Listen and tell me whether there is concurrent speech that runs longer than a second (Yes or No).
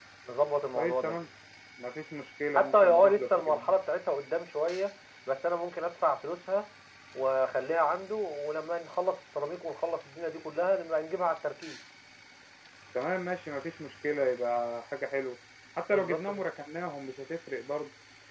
Yes